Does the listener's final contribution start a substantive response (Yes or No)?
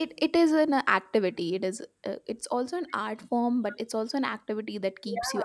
Yes